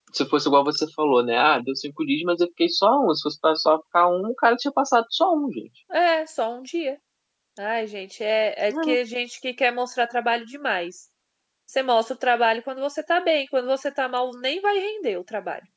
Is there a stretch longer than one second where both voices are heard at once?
No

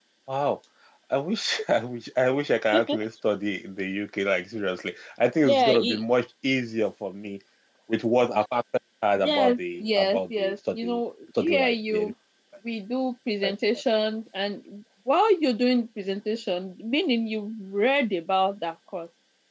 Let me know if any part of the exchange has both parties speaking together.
Yes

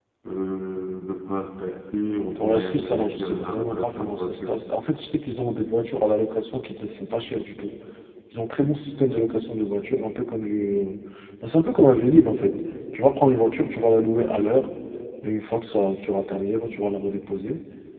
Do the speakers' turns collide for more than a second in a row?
Yes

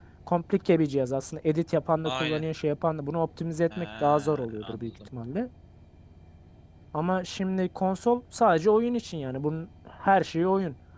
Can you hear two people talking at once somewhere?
Yes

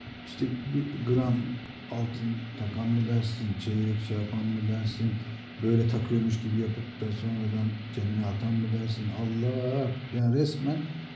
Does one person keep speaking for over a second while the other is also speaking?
No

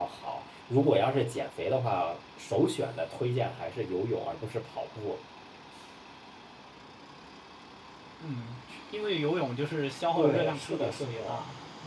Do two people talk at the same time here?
Yes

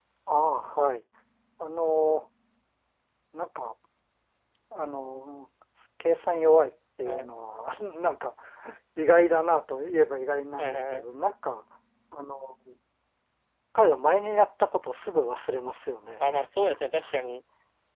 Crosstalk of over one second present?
No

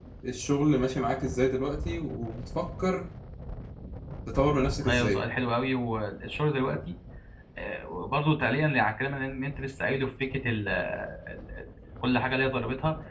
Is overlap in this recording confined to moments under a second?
Yes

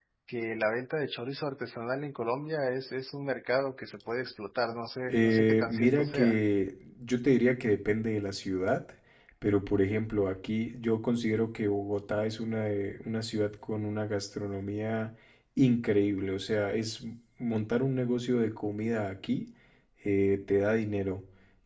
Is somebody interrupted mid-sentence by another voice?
Yes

